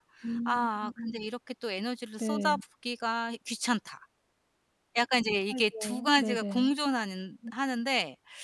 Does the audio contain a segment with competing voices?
Yes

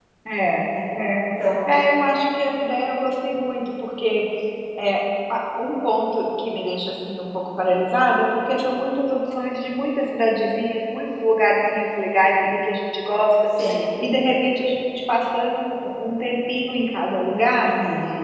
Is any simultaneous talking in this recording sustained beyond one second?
No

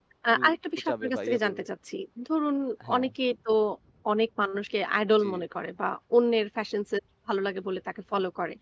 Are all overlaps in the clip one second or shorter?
No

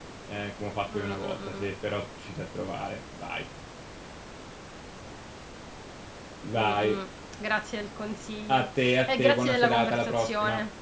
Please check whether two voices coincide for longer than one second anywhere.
Yes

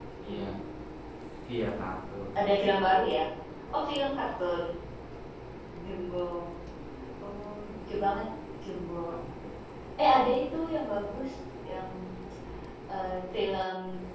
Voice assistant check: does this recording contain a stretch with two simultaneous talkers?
No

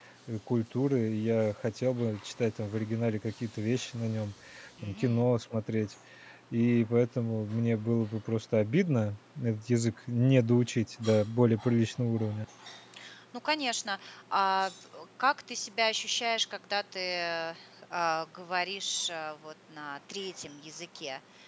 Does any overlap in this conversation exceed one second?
No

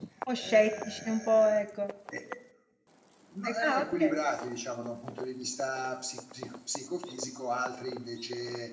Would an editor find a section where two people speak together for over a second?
Yes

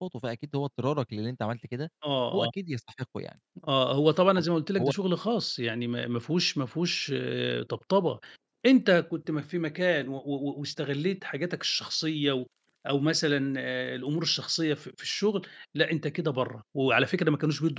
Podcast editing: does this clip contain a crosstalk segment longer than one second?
No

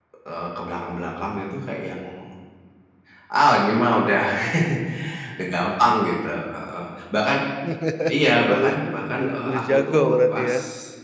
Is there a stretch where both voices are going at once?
Yes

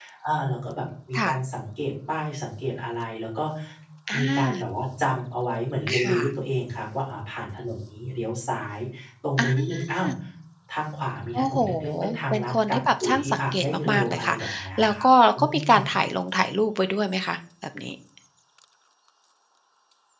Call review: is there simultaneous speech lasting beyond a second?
Yes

